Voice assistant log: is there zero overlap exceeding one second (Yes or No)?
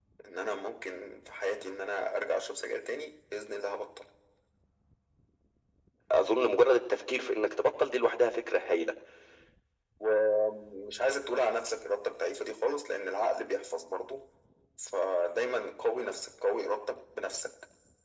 Yes